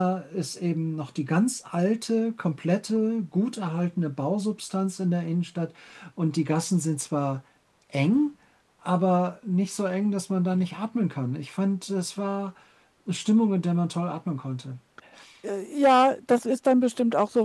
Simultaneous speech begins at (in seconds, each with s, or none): none